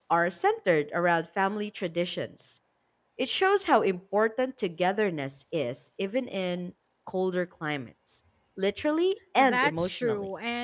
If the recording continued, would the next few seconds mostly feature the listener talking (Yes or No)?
Yes